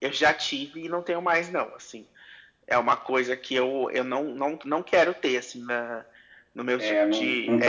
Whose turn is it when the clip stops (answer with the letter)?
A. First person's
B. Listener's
B